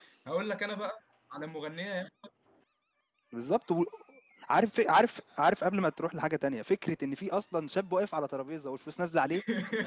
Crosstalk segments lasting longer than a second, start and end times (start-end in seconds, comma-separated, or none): none